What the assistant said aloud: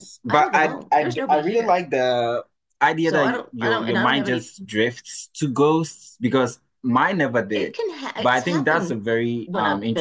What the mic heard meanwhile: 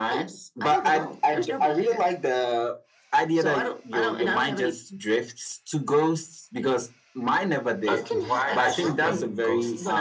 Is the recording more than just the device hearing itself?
Yes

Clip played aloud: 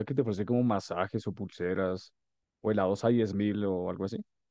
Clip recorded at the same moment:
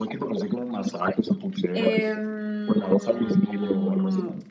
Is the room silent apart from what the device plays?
No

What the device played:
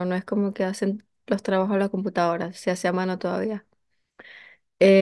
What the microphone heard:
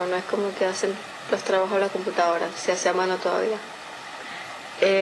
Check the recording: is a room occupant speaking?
No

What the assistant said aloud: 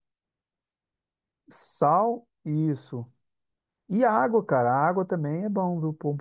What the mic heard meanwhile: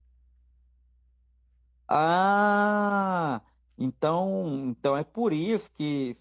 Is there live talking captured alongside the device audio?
Yes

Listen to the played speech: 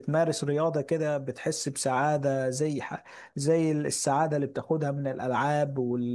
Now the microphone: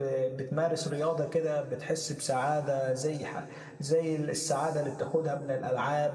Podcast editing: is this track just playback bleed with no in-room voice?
Yes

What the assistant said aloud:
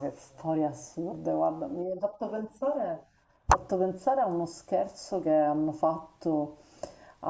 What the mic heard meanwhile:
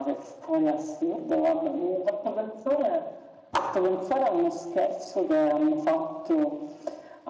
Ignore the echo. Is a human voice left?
No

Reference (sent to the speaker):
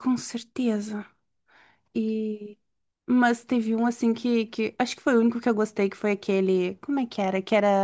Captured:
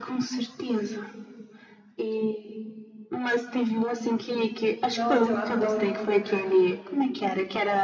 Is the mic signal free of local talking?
No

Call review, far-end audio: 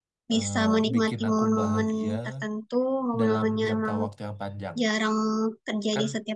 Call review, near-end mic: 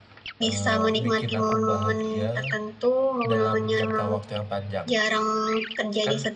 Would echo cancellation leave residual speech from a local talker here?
No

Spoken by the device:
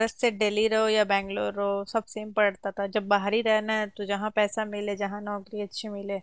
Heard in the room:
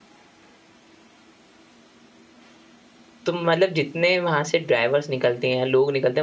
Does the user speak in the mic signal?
Yes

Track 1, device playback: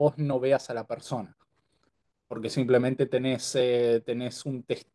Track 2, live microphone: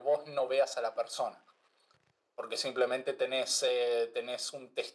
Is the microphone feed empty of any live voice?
Yes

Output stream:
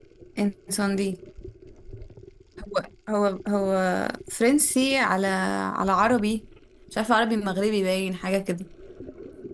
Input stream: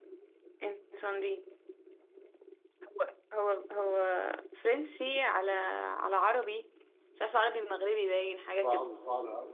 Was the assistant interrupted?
Yes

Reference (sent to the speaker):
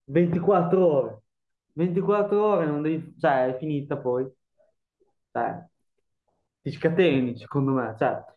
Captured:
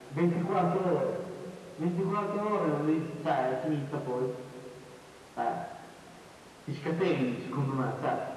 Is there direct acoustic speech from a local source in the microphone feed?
No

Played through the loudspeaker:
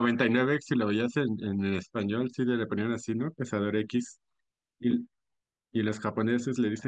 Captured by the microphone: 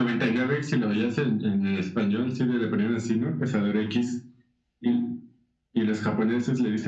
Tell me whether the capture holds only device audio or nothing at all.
Yes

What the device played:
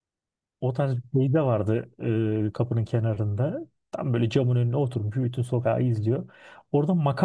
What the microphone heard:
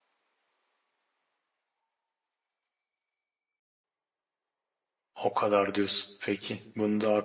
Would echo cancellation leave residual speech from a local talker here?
Yes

